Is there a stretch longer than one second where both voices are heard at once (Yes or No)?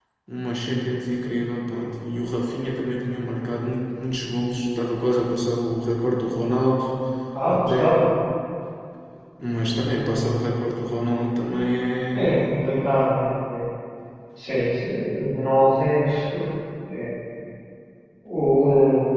No